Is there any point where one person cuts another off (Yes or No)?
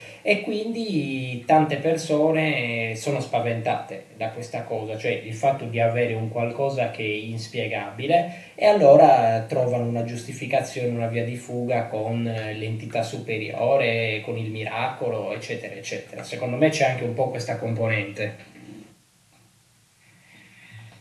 No